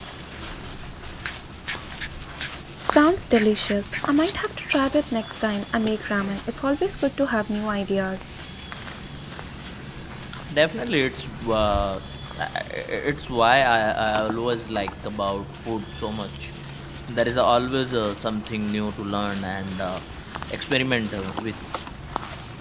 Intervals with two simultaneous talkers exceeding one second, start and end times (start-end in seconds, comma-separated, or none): none